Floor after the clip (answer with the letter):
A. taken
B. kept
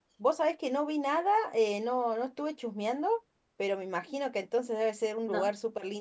B